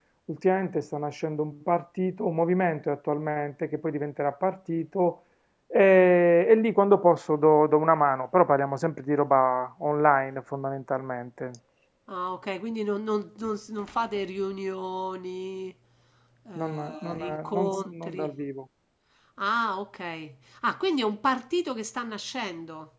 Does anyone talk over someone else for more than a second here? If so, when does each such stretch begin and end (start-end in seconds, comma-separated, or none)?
16.6-18.3